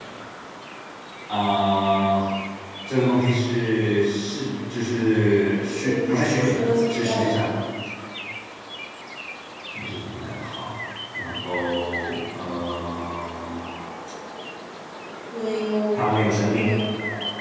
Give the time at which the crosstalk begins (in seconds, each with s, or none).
5.8 s